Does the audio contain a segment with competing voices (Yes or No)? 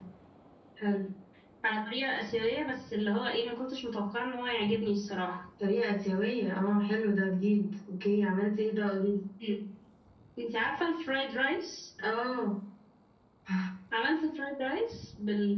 No